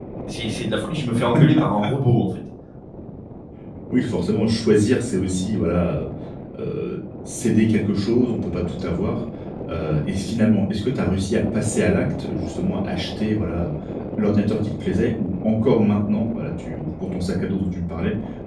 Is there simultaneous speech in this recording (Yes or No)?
No